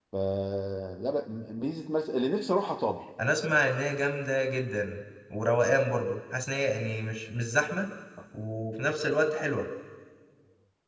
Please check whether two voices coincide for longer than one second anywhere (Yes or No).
No